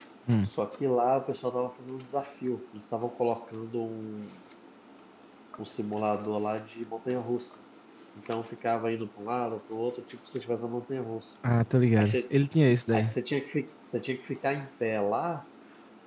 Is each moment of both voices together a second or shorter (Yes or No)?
Yes